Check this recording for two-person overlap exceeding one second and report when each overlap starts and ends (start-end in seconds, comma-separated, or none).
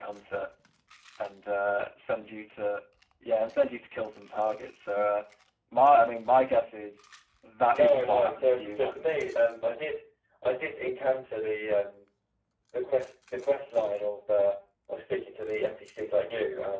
7.7-9.0